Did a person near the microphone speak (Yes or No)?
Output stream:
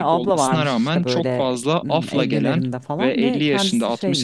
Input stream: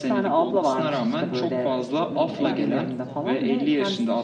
Yes